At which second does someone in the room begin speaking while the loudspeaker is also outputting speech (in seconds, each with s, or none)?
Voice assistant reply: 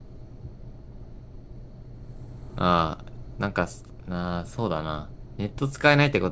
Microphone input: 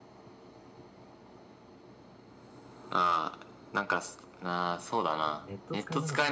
5.2 s